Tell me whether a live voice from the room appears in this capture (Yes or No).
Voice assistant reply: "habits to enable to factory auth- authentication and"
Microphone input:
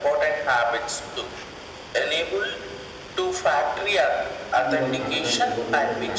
Yes